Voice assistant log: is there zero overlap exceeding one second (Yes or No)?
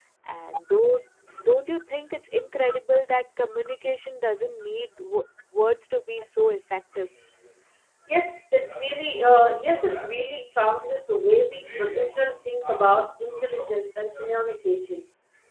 Yes